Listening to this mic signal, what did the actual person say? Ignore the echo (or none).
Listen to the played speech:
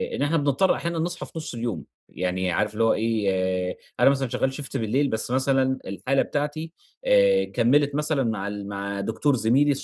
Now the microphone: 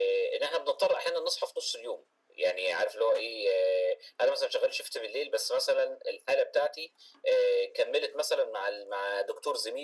none